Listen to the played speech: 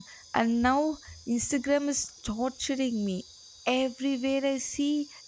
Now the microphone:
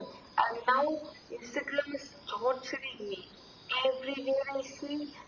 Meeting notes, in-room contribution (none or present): none